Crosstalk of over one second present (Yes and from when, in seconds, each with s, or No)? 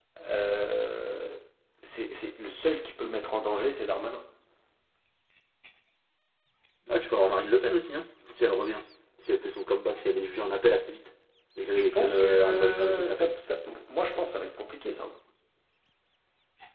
Yes, from 11.8 s